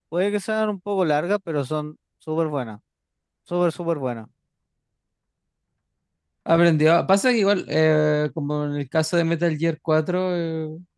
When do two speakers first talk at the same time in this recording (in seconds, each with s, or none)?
none